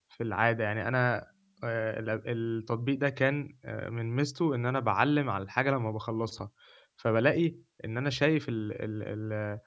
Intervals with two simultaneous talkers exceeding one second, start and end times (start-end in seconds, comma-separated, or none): none